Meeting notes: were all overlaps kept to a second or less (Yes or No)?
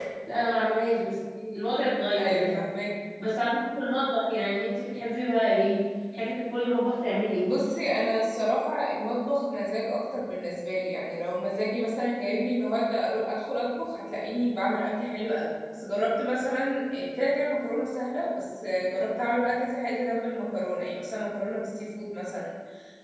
Yes